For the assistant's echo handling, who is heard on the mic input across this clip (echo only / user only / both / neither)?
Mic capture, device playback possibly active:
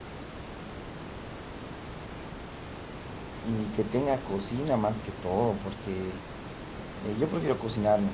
user only